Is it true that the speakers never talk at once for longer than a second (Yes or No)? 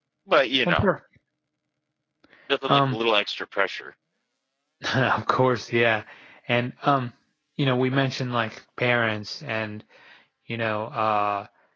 Yes